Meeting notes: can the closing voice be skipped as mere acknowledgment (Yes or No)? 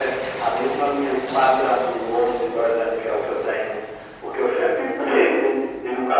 Yes